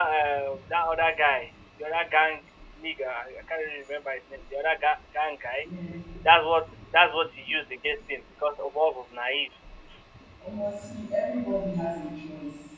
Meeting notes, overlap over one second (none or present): none